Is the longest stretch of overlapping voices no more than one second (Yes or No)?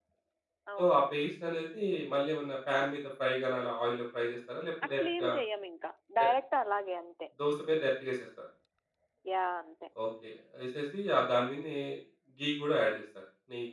Yes